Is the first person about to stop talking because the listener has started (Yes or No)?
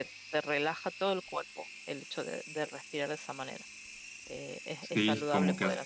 Yes